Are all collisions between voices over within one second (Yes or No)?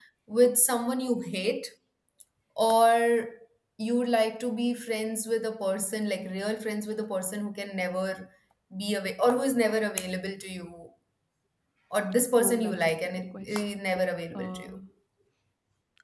No